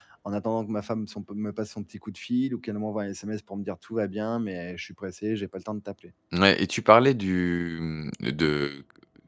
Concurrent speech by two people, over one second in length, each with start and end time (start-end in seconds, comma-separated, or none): none